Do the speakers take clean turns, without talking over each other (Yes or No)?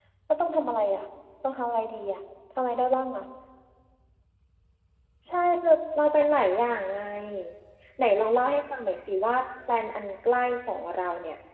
Yes